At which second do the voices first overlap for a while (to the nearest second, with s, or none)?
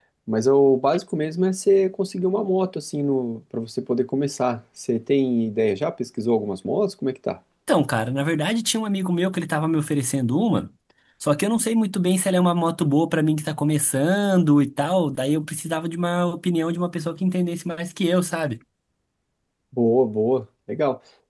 none